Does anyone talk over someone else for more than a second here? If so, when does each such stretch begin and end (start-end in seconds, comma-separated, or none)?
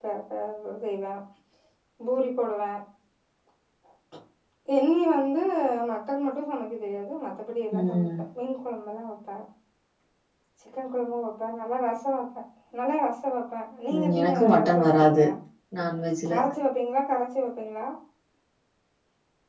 13.9-15.2